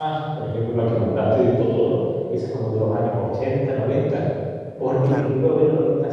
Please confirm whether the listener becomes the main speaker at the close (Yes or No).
No